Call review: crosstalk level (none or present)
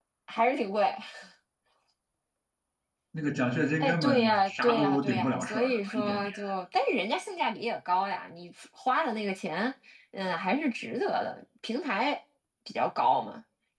present